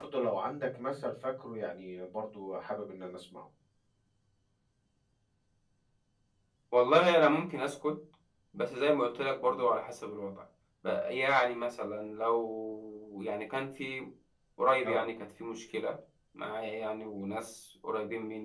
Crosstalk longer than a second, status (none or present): none